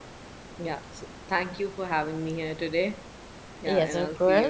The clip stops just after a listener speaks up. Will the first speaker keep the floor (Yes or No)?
No